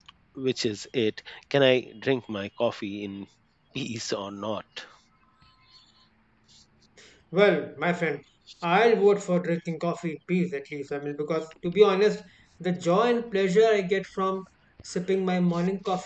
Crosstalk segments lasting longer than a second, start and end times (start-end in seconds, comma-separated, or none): none